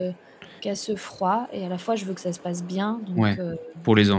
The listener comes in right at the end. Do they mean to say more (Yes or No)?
Yes